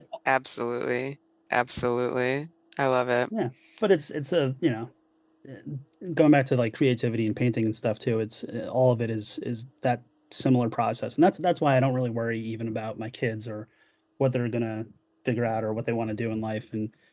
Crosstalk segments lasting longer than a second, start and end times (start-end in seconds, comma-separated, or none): none